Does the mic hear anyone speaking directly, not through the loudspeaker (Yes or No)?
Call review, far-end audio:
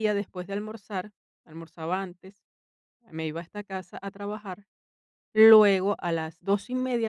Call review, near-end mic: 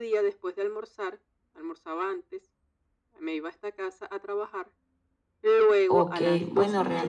Yes